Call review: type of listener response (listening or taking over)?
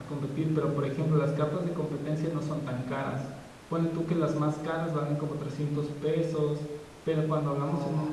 listening